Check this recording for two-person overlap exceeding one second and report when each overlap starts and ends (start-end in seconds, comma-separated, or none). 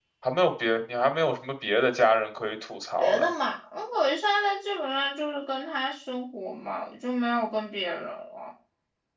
none